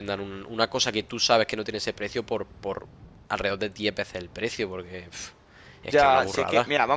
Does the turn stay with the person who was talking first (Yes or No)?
No